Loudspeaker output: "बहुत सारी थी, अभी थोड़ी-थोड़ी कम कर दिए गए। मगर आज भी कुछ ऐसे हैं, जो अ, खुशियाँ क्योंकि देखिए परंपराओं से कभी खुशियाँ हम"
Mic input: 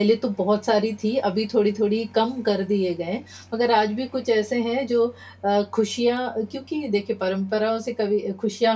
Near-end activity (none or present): none